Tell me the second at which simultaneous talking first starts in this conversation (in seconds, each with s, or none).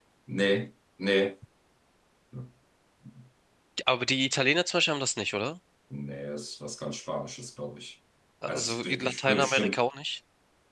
8.5 s